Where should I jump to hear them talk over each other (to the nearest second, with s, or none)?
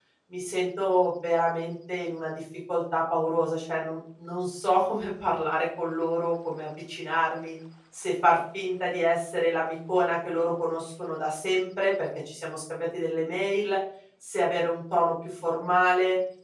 none